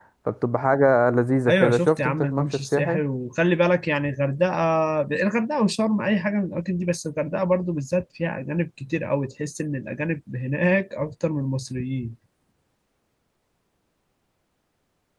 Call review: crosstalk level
present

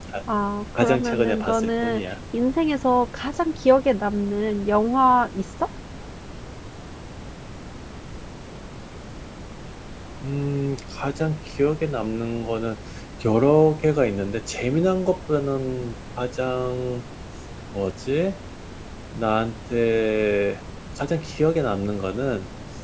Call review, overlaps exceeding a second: present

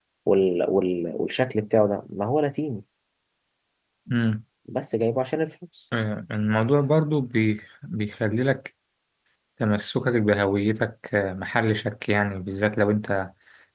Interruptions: none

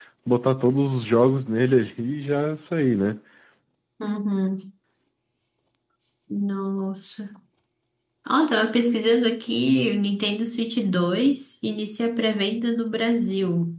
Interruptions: none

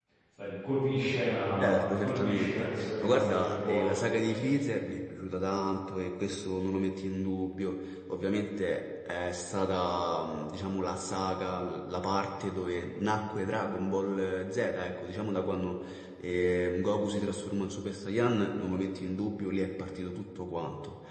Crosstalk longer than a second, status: present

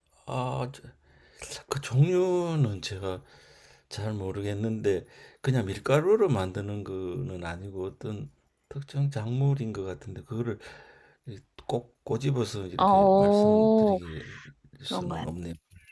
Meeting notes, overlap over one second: present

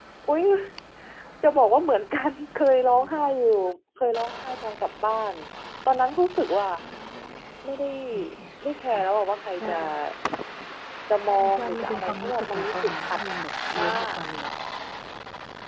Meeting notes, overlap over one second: present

